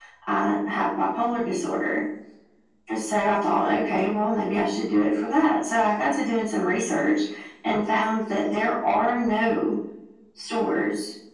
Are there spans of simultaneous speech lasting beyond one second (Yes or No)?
No